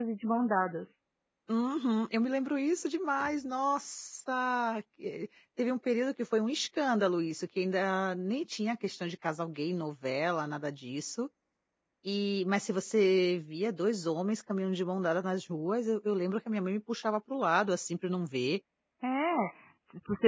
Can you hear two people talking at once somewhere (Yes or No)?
No